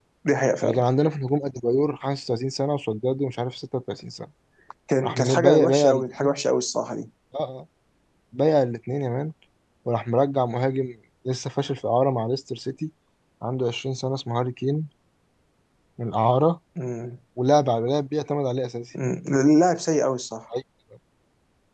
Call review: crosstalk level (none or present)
present